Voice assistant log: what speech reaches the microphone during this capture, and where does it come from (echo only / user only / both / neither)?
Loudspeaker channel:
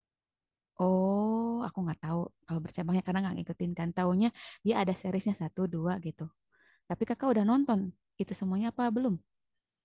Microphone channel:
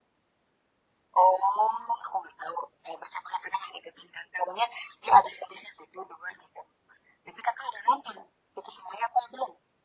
echo only